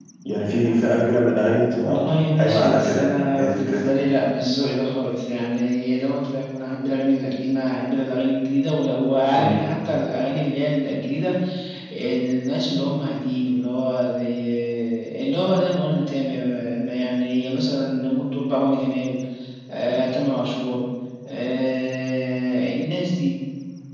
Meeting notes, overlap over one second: present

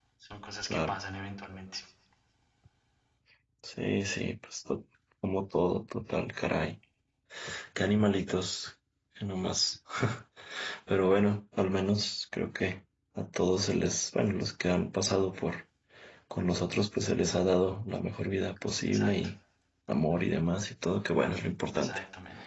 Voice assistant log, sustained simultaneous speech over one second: none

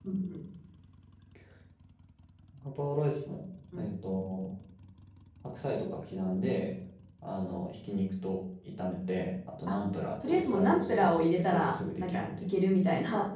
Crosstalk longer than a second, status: present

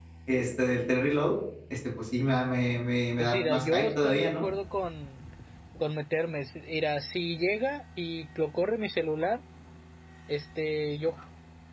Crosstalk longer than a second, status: present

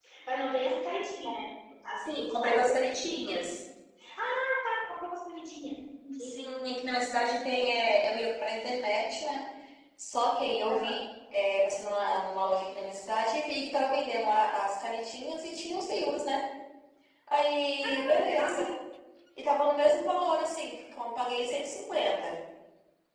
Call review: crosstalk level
present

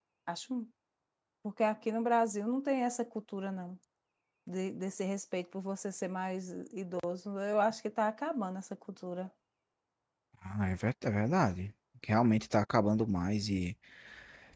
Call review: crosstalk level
none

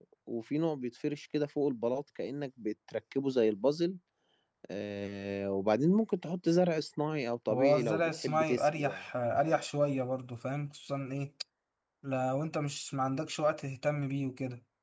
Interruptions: present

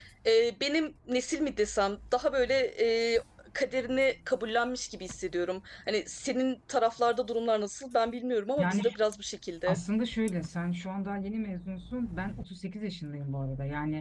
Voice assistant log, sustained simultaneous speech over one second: none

